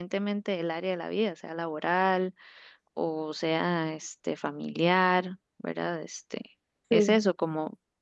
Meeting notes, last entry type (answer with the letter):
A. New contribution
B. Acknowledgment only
B